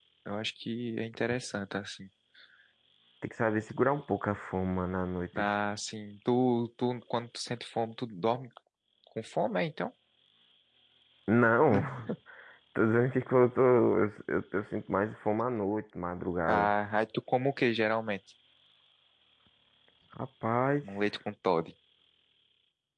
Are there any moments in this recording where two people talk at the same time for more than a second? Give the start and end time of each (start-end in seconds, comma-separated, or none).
none